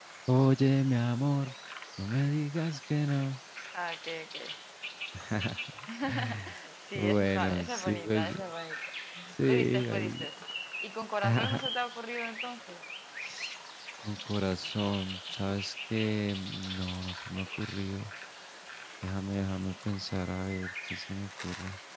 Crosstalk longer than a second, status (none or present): present